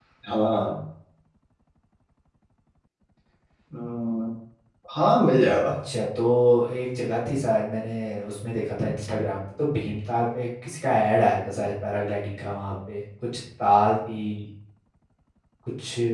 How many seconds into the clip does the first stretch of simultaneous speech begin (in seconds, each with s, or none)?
none